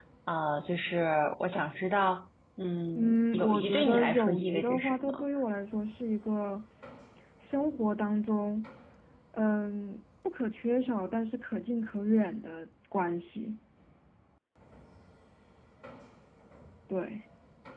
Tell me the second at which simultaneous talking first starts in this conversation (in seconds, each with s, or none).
3.0 s